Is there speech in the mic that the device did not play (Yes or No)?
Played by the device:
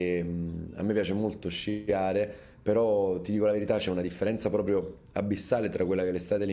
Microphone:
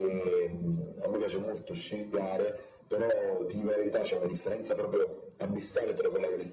No